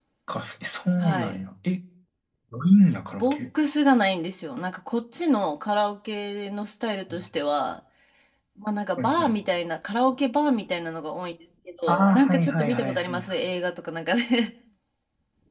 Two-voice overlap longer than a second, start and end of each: 11.9-13.3

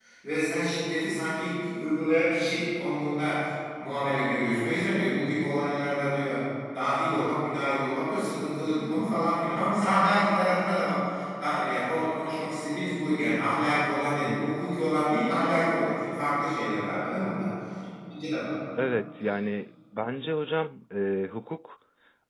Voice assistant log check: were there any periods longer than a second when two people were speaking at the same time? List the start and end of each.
none

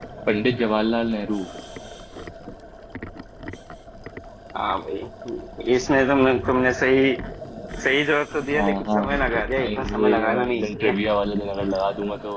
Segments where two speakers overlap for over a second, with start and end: 9.6-11.0

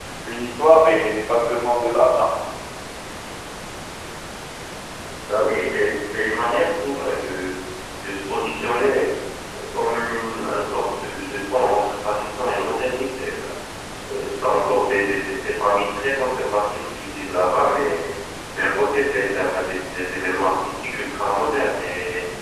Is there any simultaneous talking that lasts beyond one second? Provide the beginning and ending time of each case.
none

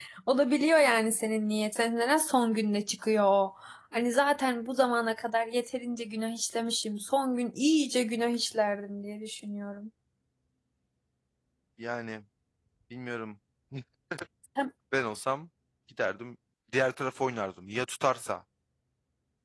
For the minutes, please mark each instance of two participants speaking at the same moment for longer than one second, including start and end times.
none

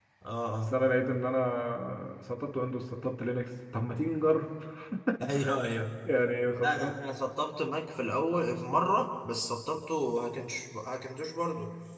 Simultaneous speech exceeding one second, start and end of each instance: none

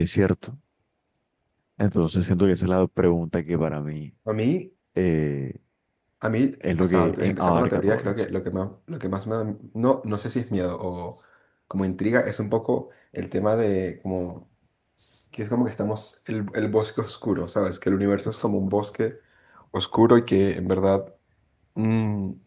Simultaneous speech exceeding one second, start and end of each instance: 6.8-8.2

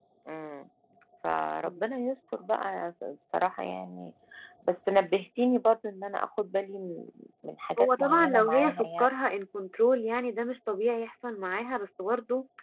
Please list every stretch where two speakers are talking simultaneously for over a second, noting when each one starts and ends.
7.8-9.1

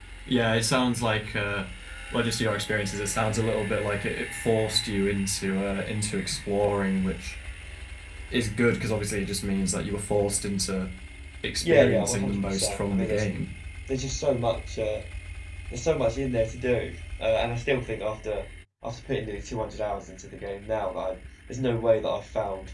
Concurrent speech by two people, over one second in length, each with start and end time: 11.7-13.2

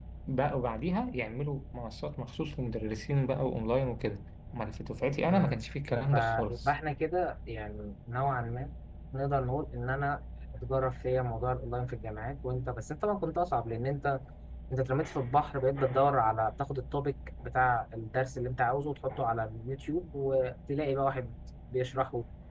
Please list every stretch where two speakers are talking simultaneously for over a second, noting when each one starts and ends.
5.3-6.7

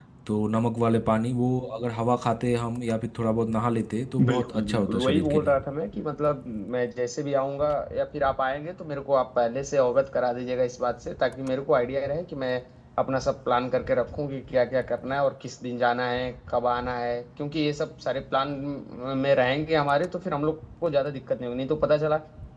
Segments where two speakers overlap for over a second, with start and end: 4.3-5.5

